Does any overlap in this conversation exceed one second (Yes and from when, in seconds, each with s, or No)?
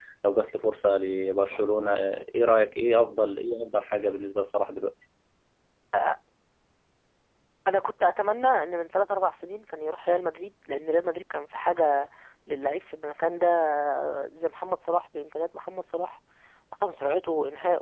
No